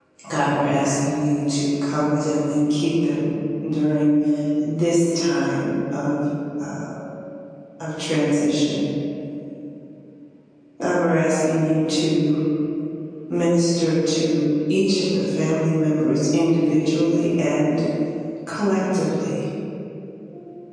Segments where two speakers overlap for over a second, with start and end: none

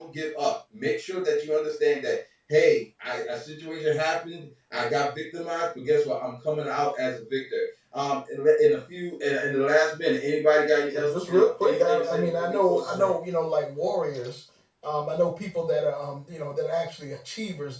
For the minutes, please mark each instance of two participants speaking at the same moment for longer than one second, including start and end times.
11.0-13.1

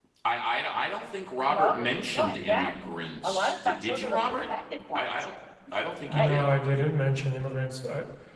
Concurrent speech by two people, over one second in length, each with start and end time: 1.5-2.8, 3.2-4.5

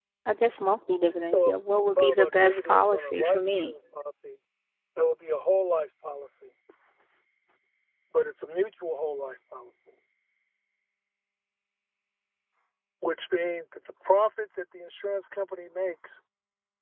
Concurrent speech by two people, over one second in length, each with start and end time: 2.0-3.7

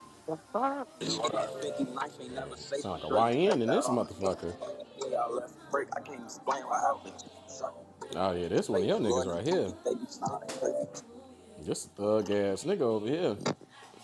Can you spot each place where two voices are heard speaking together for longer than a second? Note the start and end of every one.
2.8-4.6, 8.2-9.7

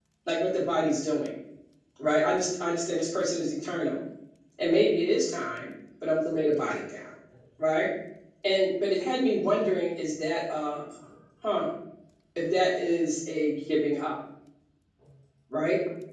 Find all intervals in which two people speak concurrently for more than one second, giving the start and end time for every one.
none

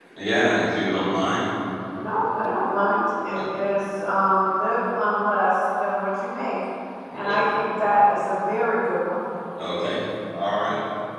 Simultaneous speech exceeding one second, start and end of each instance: none

